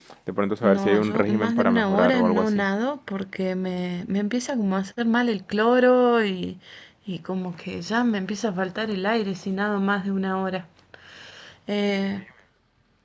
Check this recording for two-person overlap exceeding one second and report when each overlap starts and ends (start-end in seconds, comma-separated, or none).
0.6-2.6